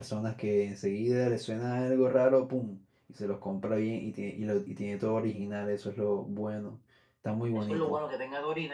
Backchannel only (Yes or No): No